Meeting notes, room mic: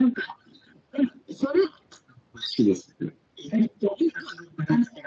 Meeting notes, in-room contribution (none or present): none